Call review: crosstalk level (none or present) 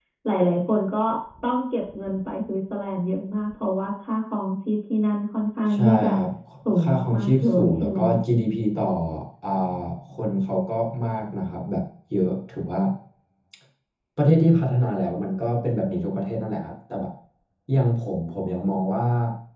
present